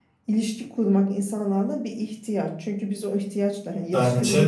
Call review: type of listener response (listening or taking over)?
listening